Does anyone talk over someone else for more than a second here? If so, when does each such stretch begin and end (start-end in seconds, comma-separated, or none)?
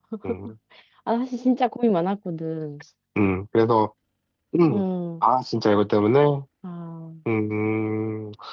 none